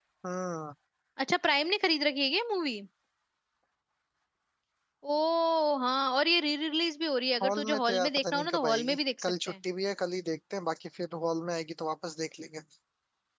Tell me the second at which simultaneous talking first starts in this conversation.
7.3 s

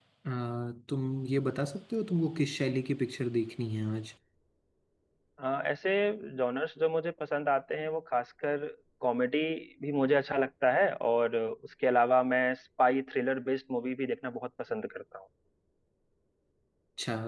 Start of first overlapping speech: none

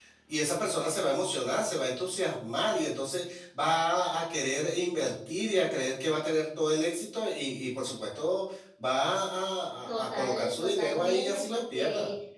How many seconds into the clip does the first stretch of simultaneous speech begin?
9.9 s

